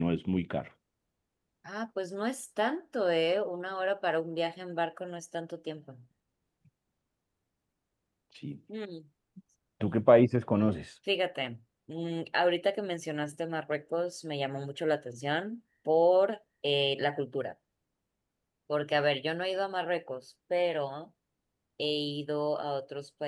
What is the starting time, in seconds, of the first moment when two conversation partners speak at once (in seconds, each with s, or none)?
none